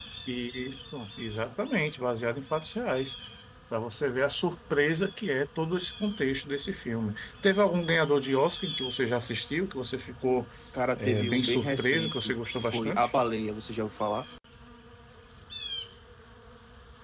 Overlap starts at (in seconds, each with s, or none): 11.0 s